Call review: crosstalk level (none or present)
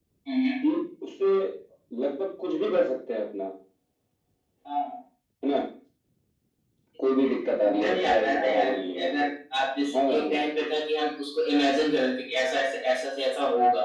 present